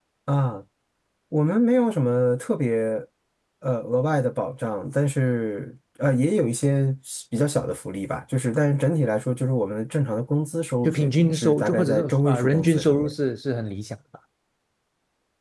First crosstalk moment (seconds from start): 11 s

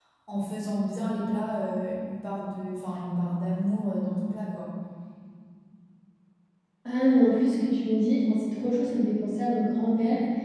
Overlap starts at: none

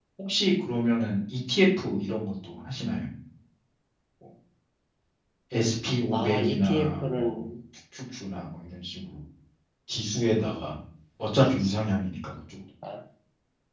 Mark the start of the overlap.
6 s

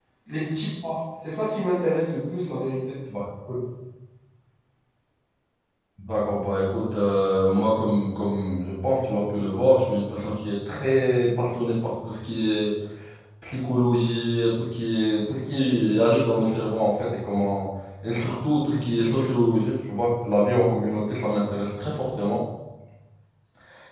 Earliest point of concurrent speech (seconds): none

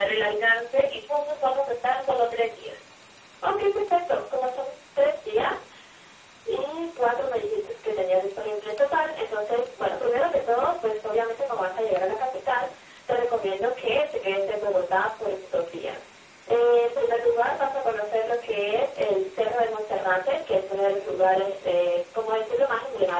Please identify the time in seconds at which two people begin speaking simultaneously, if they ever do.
none

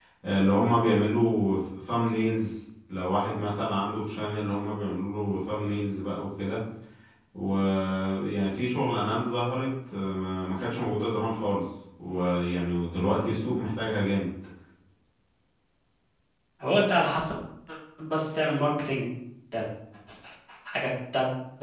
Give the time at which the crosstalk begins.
none

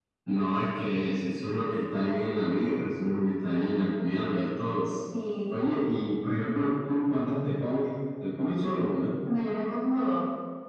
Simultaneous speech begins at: none

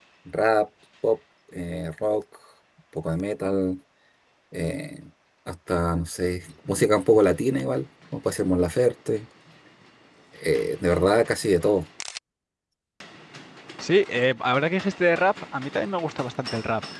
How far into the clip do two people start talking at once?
none

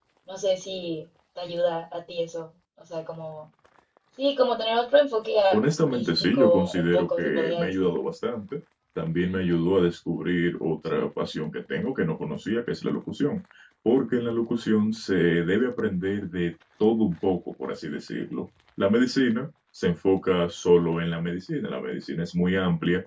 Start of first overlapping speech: 6 s

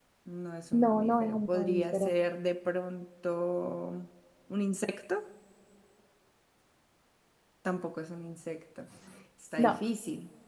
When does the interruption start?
1 s

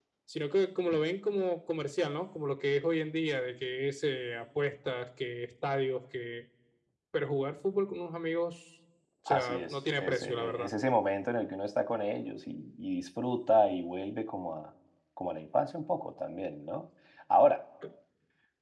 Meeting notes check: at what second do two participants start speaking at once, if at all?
9 s

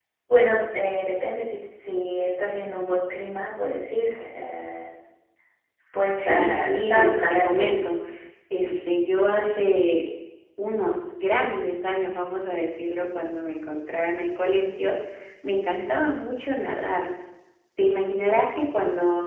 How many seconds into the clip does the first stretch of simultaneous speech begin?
6 s

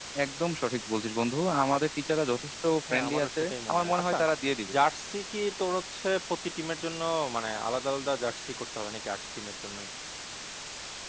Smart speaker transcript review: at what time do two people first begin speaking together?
3 s

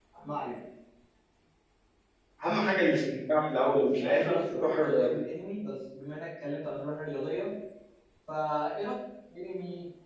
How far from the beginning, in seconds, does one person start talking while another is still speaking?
4 s

